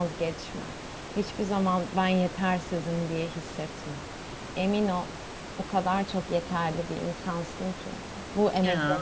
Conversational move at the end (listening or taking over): listening